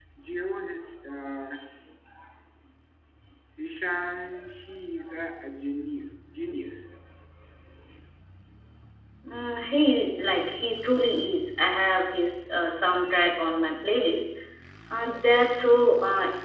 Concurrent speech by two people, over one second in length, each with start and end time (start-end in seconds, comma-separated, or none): none